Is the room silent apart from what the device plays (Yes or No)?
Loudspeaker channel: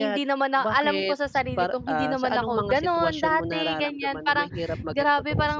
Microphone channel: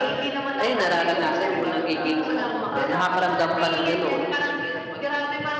No